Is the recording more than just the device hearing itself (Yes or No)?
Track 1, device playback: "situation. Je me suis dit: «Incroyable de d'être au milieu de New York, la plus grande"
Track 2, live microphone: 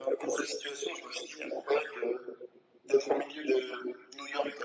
No